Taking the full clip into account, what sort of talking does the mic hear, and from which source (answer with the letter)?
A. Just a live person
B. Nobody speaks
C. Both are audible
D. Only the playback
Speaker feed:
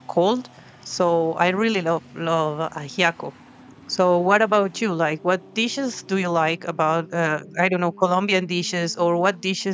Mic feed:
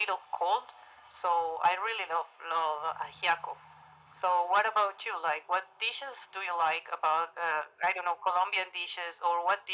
D